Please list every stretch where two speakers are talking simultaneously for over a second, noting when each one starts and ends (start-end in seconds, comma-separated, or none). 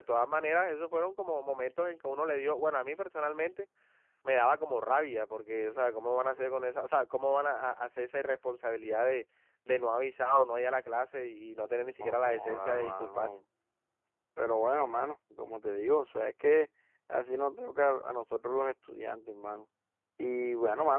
12.0-13.3